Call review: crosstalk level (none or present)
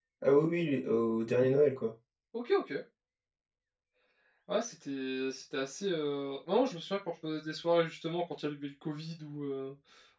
none